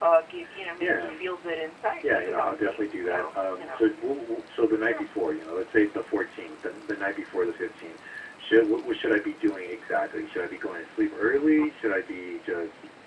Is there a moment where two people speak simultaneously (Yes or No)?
Yes